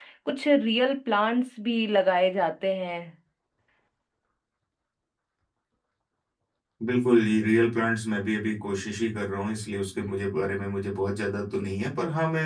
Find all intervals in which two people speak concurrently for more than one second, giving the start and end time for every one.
none

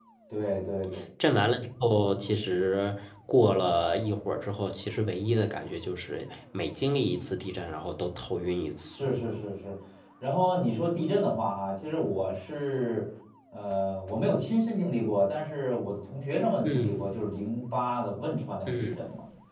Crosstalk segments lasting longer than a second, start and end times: none

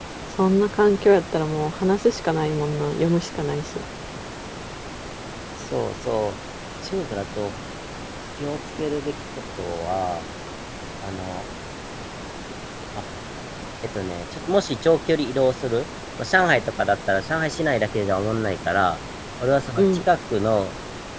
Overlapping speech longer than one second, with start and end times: none

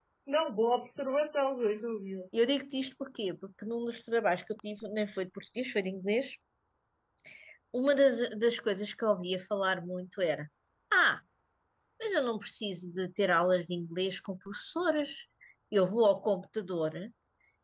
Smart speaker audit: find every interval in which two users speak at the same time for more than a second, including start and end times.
none

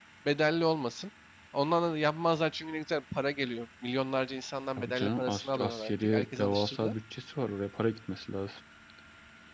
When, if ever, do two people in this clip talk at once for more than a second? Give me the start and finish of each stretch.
4.8-6.9

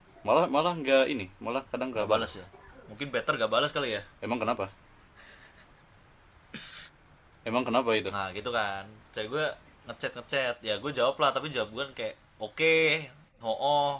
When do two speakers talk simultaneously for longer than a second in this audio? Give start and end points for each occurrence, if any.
none

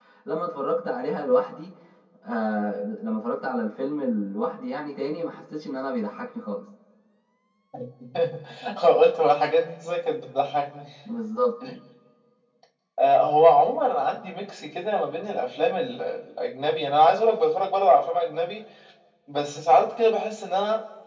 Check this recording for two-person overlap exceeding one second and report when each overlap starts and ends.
none

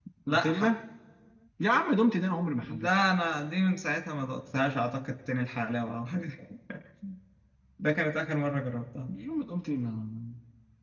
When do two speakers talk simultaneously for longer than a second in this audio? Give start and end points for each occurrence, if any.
none

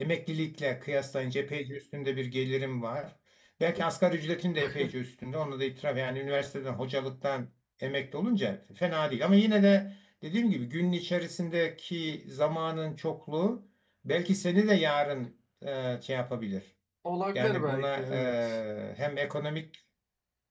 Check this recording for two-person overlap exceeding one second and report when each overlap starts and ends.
17.4-18.6

